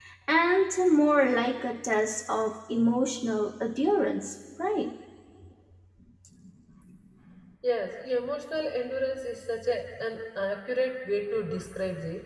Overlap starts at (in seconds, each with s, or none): none